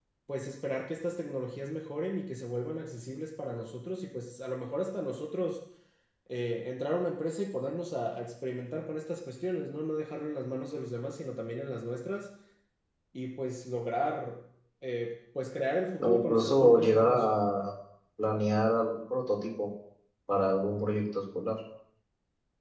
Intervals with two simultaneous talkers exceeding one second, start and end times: 16.0-17.3

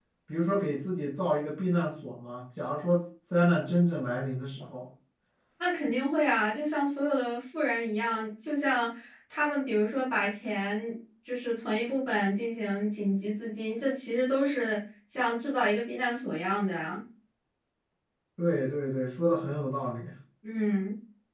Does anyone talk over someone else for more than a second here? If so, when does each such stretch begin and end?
none

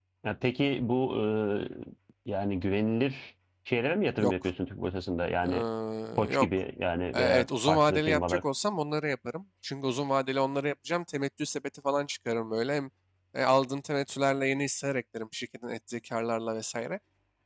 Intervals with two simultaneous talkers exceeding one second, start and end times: 7.1-8.4

